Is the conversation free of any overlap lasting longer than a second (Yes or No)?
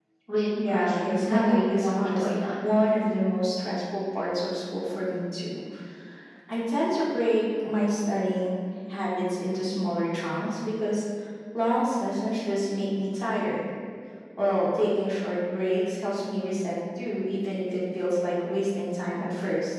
No